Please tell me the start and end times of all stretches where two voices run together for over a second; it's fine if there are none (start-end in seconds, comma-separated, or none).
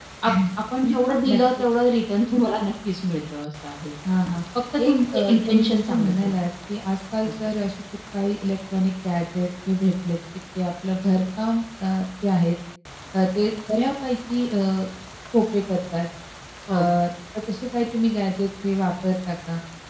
4.8-6.3